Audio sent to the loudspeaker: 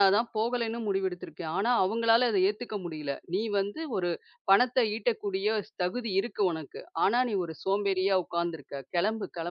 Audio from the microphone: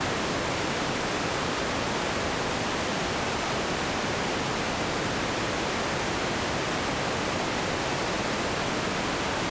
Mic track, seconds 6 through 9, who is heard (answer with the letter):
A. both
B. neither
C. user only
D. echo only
B